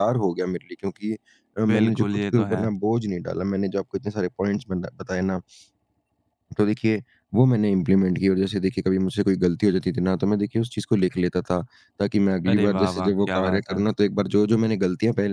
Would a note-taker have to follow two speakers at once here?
Yes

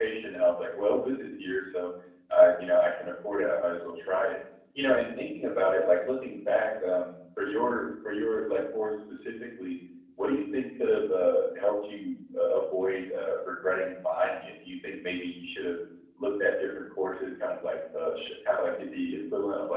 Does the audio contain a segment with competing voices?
No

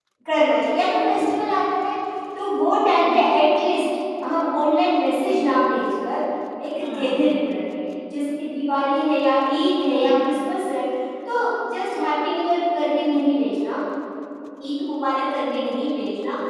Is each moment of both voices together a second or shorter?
Yes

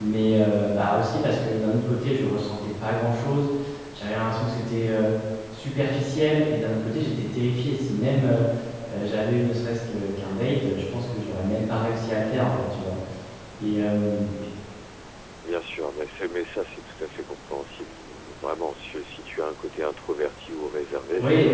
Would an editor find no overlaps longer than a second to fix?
Yes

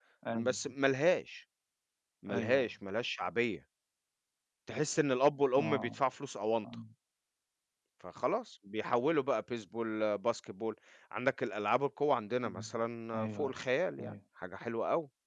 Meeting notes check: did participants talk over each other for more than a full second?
No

